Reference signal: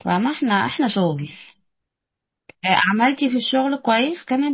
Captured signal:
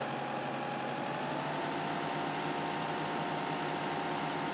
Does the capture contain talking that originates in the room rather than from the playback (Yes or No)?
No